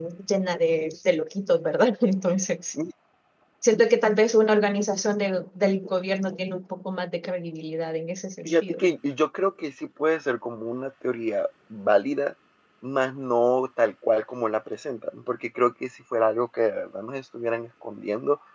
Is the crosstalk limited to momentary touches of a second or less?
Yes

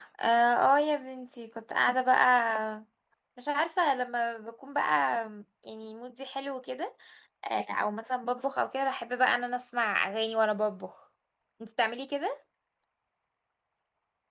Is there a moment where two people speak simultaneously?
No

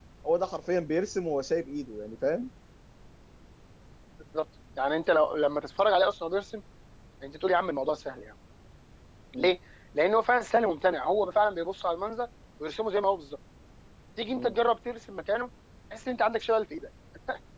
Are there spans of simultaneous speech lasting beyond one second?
No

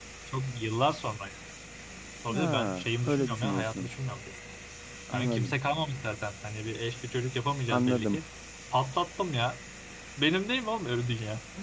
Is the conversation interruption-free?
No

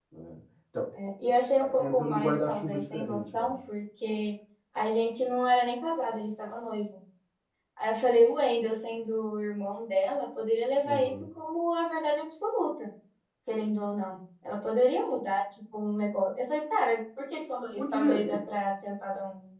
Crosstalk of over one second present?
Yes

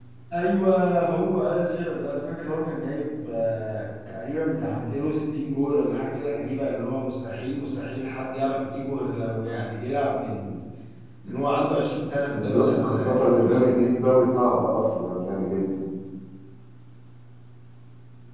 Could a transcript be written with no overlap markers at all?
No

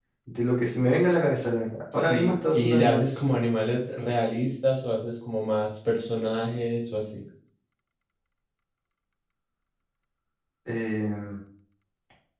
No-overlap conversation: No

